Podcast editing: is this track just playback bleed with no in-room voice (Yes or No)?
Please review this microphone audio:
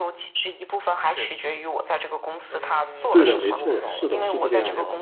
No